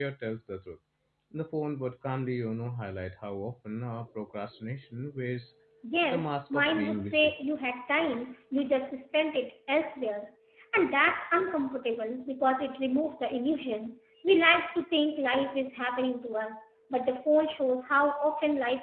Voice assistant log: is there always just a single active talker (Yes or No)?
No